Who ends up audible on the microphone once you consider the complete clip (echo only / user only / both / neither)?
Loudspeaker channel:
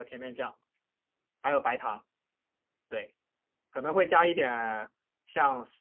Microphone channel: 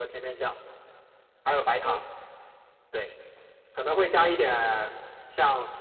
both